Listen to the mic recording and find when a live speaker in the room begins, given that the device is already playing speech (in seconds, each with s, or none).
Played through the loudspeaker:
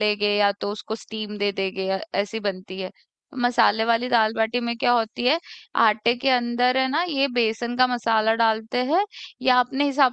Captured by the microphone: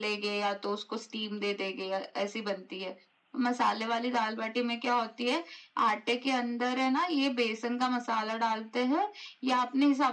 none